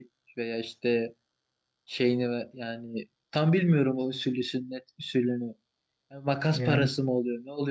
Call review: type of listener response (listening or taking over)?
listening